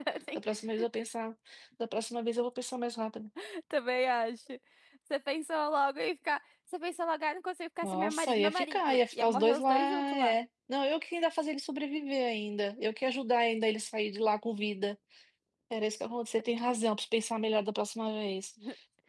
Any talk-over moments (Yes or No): Yes